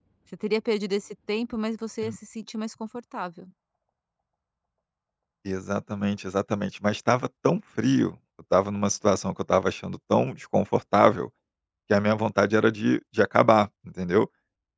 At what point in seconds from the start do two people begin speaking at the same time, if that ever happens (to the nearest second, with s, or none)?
none